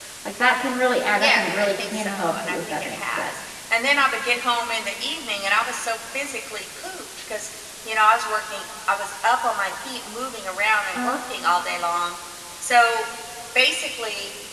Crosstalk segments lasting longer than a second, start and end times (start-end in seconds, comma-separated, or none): 1.2-3.3